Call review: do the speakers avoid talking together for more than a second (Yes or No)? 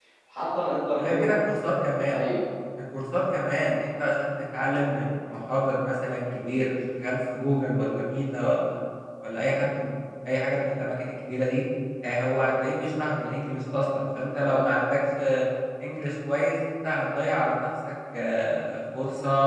Yes